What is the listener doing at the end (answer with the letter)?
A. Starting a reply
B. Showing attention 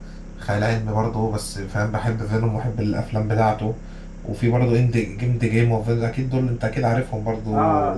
A